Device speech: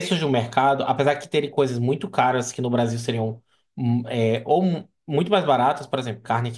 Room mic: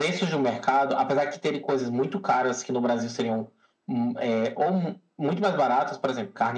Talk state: echo only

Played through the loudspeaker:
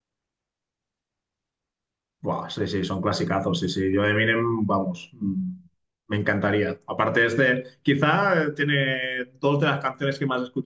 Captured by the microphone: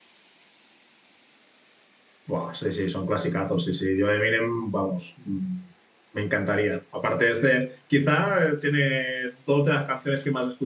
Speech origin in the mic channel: echo only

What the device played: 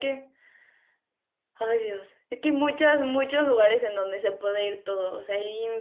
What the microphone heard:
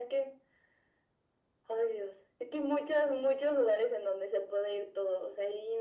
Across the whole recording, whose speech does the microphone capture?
echo only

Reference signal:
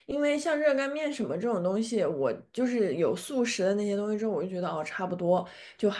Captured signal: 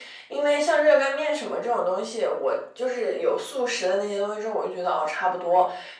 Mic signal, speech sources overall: echo only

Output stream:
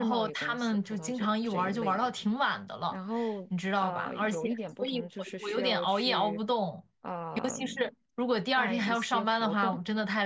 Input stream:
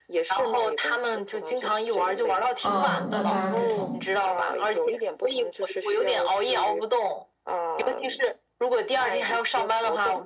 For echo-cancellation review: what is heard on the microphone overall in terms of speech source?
both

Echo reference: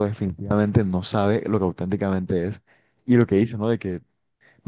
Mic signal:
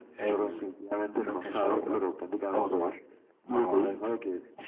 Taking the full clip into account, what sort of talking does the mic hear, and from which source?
both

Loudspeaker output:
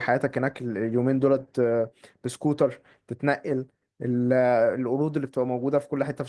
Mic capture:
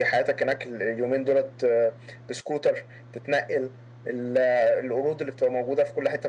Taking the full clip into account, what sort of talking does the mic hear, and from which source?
echo only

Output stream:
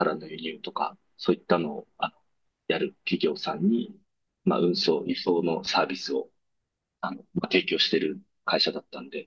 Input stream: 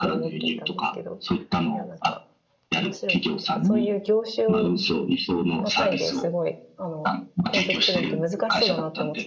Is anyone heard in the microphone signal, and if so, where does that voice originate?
both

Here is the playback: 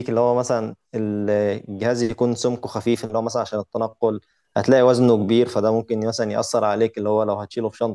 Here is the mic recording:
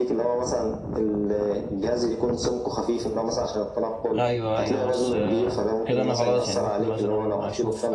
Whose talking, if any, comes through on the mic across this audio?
both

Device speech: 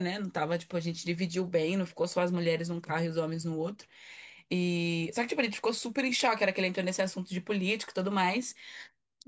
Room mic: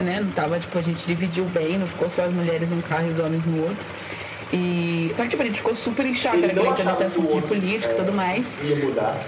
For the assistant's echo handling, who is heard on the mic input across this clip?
both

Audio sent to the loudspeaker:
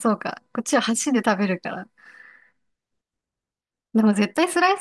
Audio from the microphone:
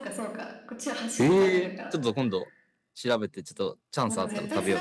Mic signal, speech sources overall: both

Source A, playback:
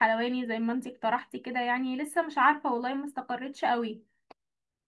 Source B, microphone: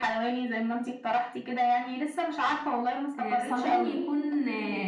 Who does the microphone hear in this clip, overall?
both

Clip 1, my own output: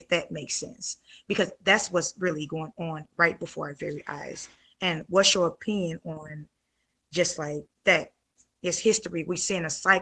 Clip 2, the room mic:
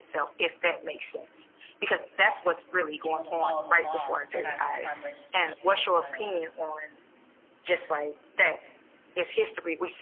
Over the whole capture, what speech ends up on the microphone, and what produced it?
both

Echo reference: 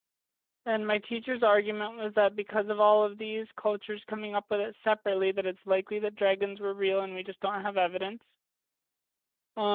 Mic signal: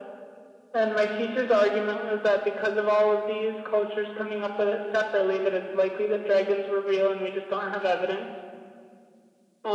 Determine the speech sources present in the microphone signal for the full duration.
echo only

